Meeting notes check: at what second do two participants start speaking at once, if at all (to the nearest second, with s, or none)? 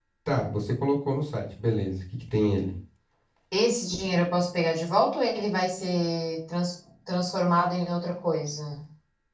none